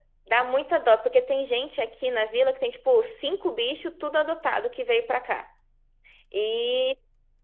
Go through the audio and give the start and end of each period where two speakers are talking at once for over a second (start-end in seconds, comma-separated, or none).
none